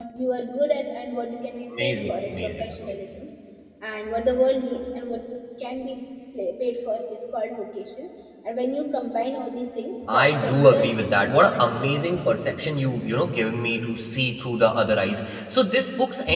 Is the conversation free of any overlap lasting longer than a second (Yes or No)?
No